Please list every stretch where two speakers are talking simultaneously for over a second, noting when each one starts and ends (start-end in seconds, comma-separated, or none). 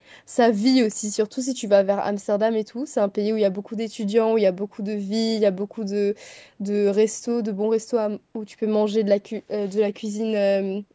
none